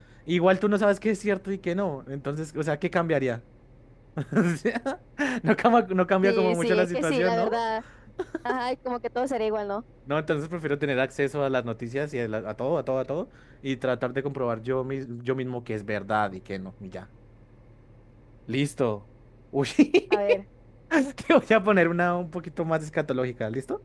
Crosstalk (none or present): present